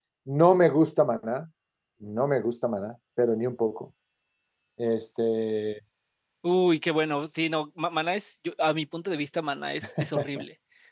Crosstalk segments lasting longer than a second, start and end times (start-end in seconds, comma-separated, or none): none